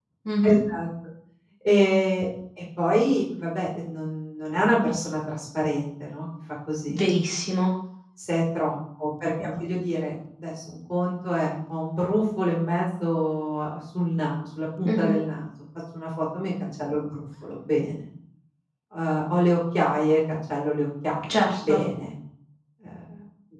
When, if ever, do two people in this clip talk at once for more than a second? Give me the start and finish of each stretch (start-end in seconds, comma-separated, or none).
none